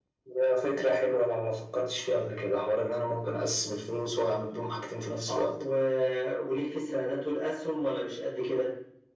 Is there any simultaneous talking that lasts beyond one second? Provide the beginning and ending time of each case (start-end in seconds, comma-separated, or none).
none